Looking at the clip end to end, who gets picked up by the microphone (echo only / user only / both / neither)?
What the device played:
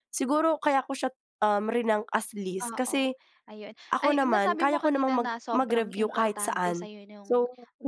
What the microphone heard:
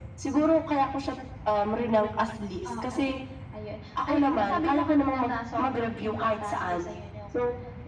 echo only